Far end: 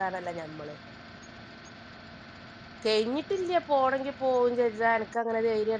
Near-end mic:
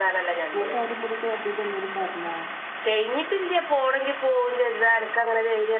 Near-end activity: present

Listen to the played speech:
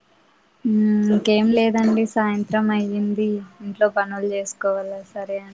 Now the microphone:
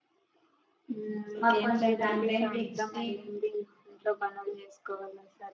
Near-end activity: present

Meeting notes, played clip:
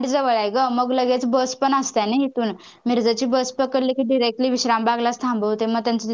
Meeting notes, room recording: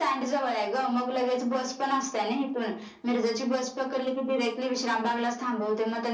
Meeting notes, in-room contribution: none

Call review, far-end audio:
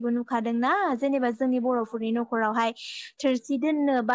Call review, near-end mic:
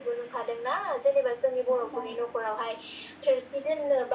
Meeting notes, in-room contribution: present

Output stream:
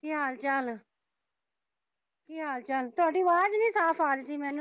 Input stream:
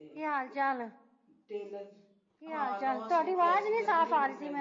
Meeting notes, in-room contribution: present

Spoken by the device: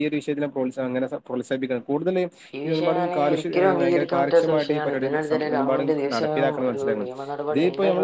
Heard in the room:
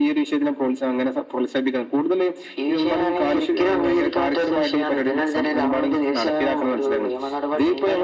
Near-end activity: none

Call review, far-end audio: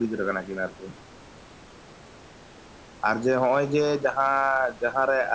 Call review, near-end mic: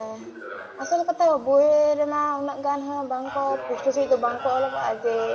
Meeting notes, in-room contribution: present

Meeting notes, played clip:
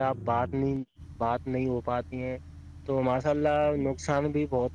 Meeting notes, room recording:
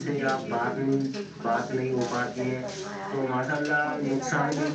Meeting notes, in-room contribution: present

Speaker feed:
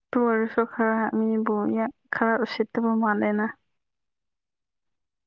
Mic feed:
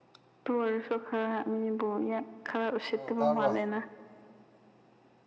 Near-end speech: present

